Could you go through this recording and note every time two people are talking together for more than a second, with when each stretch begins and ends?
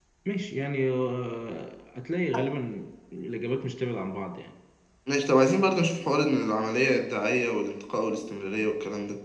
none

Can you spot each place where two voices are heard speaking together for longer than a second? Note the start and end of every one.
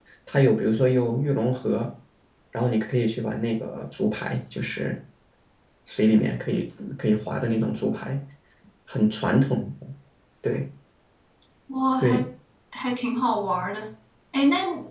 none

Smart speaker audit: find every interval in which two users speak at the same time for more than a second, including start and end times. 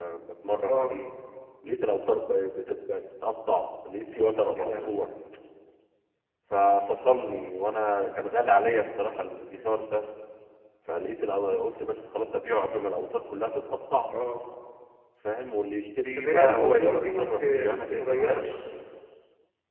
16.2-18.4

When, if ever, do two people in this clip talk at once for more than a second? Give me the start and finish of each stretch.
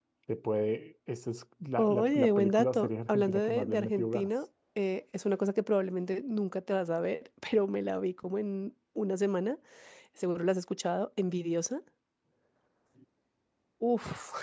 1.8-4.3

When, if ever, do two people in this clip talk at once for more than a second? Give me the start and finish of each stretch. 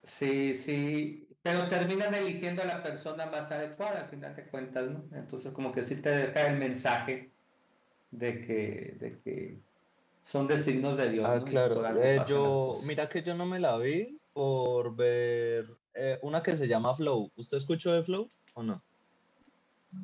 11.2-12.9

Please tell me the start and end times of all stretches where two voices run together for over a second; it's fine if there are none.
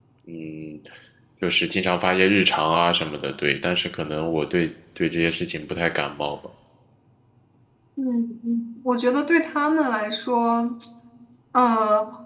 none

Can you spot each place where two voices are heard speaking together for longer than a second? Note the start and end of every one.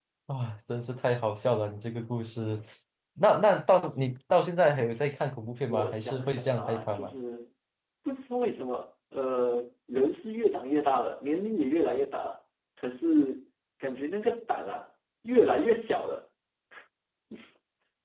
5.7-7.1

